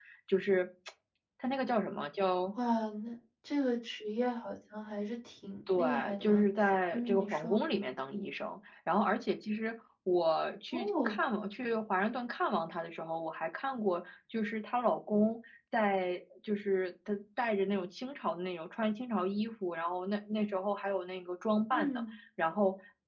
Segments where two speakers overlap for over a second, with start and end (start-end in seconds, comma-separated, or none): 5.8-7.6